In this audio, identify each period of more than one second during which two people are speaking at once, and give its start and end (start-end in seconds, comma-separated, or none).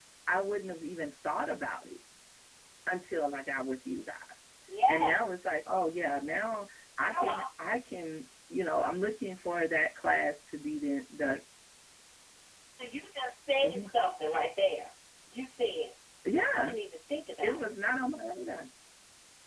none